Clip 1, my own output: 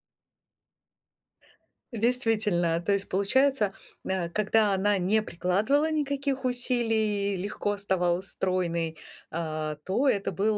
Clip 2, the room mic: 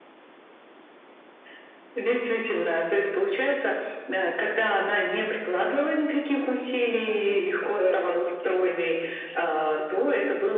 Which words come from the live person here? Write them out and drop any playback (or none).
э, вот такое опять-таки некое принижение тебя.